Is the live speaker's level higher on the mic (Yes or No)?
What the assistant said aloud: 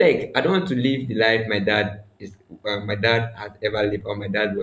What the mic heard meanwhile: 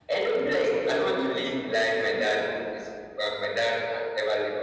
No